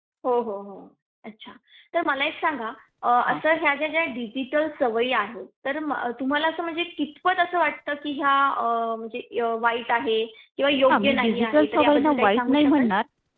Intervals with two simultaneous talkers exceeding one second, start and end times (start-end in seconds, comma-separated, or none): 10.9-12.9